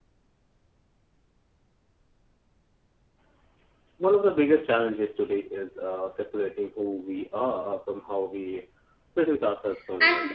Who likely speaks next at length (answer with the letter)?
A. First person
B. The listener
B